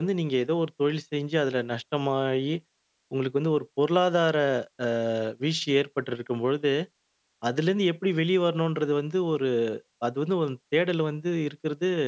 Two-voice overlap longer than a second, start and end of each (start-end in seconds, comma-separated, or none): none